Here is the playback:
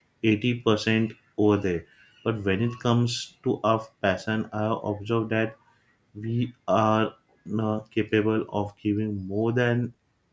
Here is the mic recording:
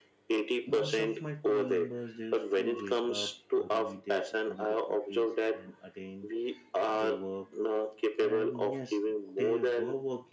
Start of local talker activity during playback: 1 s

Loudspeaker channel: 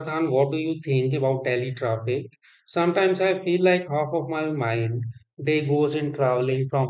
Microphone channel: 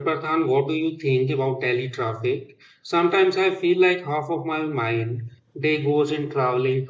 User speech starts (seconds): none

